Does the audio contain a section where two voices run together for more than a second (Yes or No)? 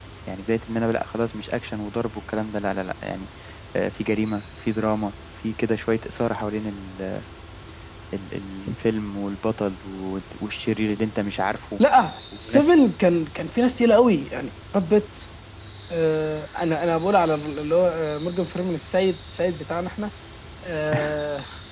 No